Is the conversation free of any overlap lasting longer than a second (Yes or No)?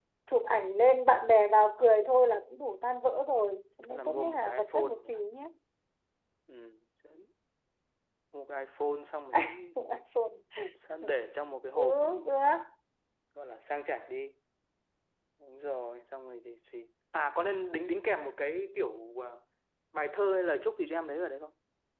No